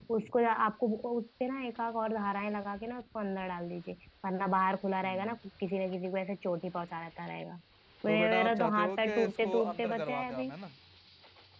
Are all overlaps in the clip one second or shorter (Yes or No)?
No